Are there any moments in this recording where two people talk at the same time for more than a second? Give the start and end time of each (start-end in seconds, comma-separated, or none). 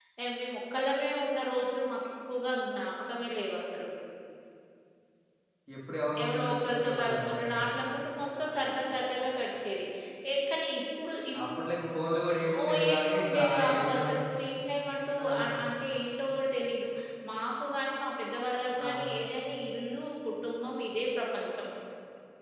6.2-7.7, 12.6-14.2